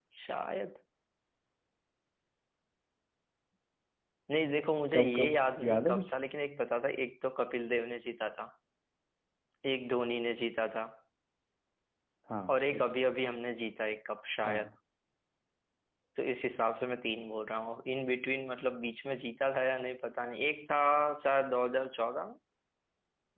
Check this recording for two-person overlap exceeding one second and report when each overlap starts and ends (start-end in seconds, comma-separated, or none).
4.9-6.1